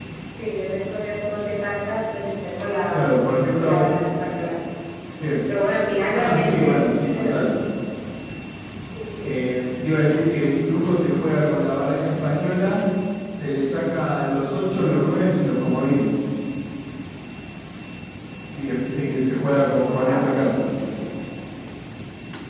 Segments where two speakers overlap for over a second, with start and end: 6.1-7.5

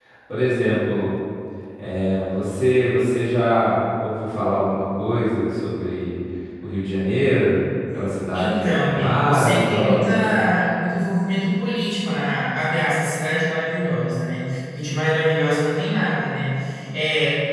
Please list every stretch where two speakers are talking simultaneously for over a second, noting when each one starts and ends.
8.3-10.4

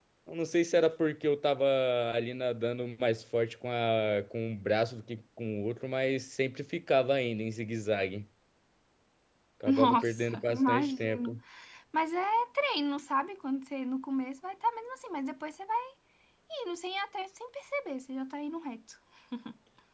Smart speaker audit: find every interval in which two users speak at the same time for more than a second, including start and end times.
9.7-11.4

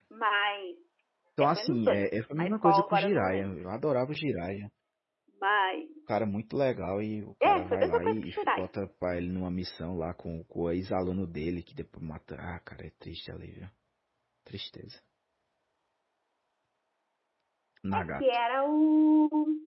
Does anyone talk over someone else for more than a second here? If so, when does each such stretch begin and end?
1.4-3.5, 7.4-8.6

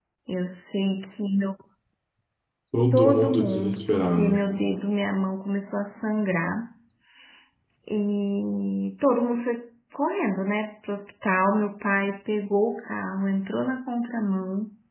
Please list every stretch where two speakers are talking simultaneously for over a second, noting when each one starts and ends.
2.9-4.4

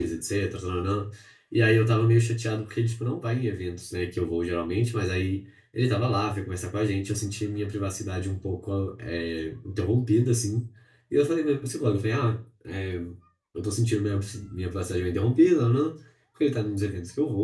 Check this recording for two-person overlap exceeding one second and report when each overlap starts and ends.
none

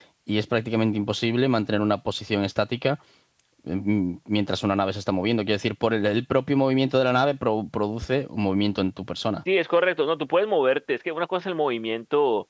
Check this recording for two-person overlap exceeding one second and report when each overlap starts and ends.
none

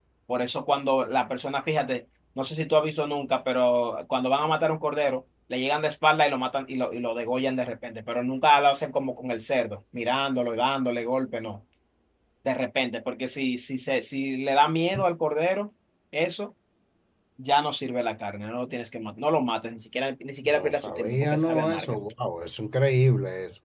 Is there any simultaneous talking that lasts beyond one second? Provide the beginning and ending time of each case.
20.4-22.0

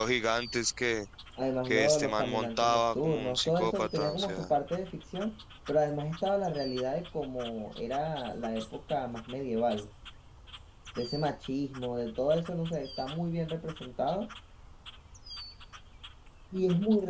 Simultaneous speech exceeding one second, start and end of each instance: 1.7-4.4

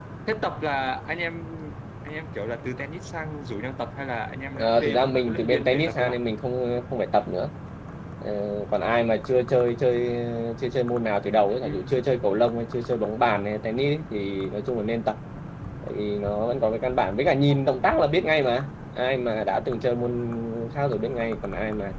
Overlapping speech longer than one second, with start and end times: 4.5-6.2

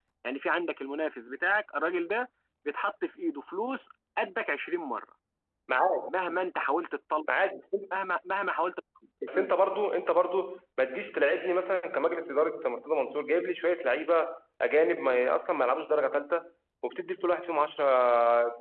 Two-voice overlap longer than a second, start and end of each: none

